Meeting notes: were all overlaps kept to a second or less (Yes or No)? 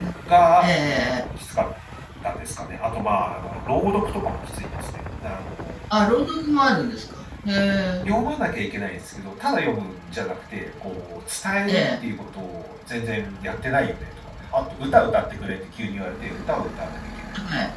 Yes